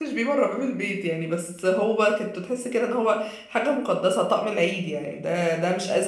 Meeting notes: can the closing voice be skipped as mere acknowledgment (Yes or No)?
Yes